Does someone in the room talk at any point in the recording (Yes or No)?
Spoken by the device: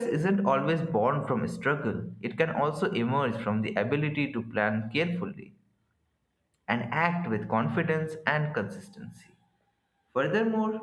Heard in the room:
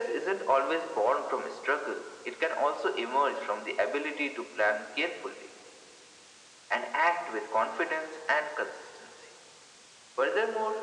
No